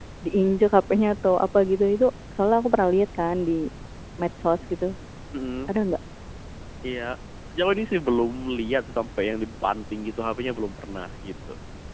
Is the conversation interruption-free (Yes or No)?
Yes